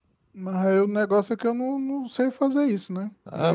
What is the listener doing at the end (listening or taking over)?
taking over